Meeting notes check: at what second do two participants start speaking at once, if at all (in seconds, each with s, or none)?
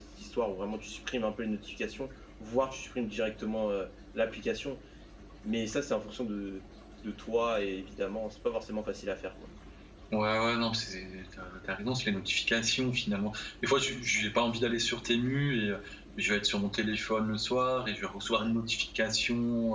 none